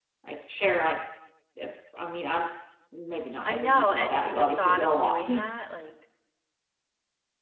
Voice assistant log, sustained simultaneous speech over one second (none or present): present